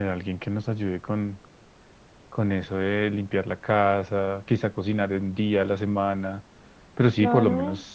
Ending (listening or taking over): taking over